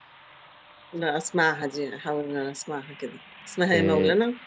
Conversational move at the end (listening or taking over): taking over